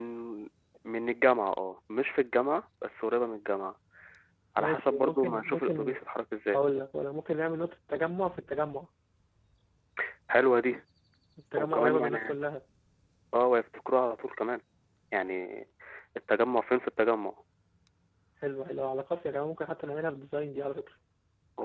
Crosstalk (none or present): present